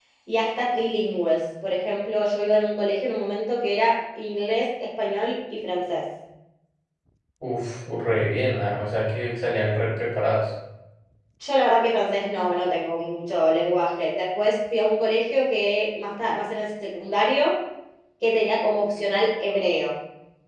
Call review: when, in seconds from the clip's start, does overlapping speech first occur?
none

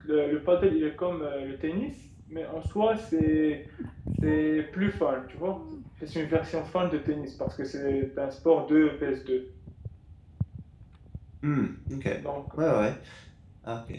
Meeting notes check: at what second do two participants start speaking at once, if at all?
none

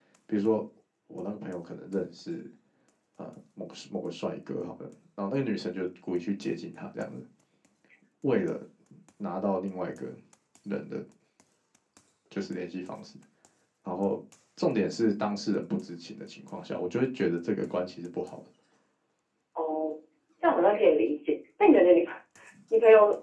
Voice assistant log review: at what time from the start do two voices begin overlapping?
none

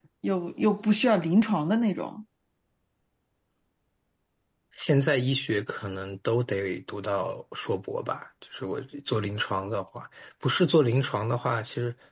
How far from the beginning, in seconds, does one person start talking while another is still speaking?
none

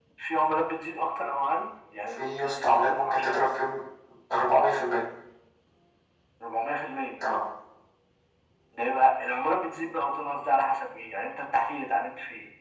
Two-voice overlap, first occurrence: 2 s

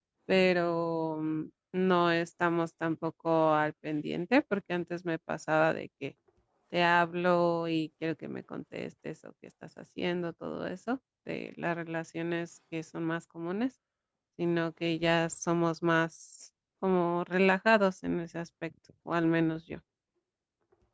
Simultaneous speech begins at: none

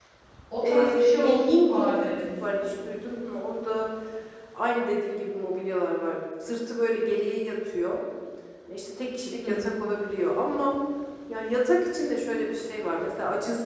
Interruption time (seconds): 1 s

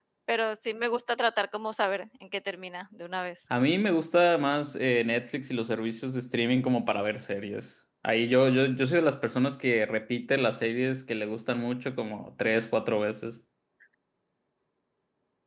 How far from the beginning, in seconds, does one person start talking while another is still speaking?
none

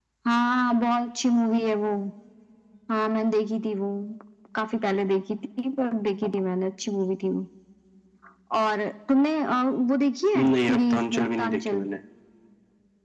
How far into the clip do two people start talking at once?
10 s

